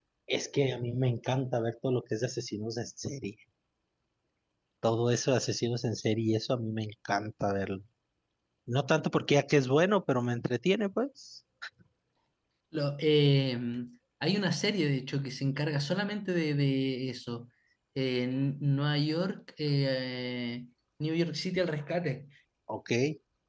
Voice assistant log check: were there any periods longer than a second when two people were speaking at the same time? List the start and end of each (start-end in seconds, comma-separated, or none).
none